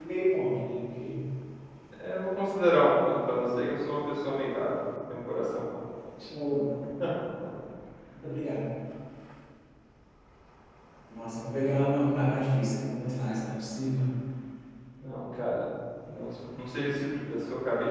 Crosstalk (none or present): none